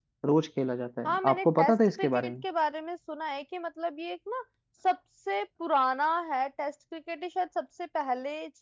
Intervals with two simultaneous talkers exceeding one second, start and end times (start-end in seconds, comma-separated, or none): 1.0-2.4